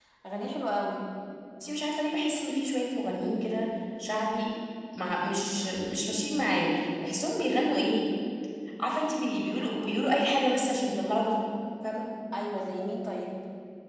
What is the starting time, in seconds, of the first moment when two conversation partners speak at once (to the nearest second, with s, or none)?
none